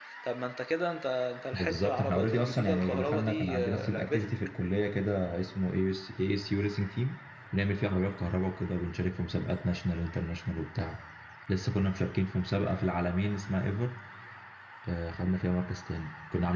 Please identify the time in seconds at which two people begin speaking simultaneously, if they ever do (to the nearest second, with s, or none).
2 s